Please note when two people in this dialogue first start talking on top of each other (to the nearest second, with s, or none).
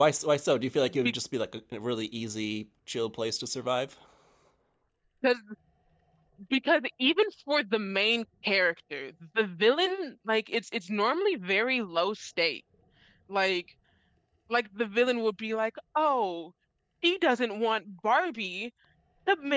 none